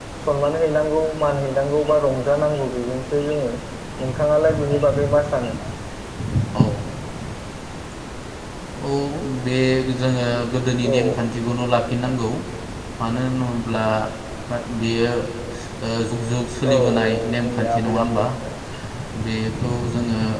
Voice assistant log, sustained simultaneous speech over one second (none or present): present